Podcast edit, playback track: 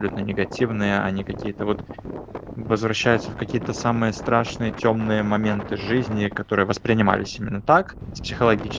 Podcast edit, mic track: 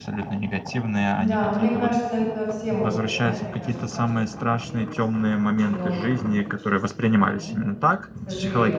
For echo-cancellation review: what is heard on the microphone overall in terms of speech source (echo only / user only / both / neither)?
both